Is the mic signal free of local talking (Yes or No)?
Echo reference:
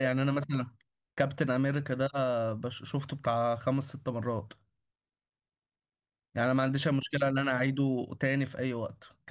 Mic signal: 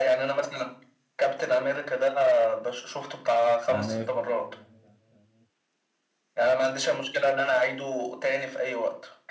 No